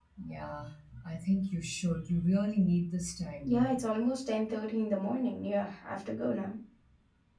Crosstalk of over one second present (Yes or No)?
No